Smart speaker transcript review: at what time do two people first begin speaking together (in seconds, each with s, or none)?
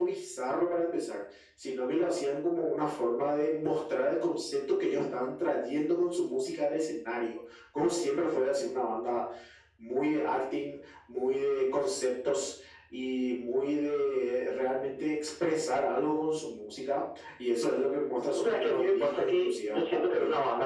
18.4 s